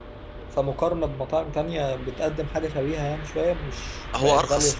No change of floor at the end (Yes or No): Yes